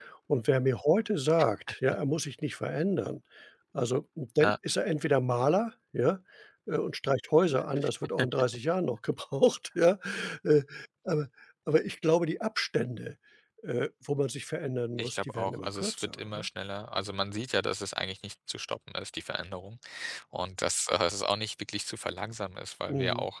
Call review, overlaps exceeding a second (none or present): present